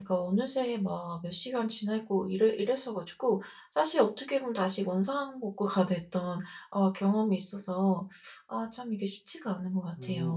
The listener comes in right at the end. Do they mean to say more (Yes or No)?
Yes